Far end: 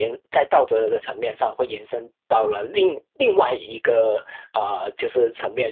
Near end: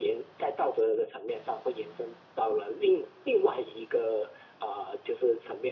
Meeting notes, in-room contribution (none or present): none